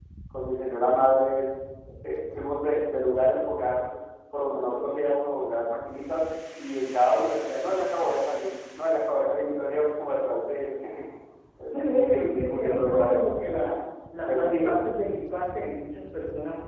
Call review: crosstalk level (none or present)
present